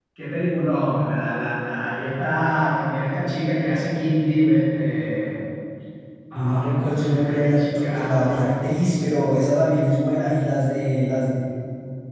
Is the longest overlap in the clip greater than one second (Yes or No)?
Yes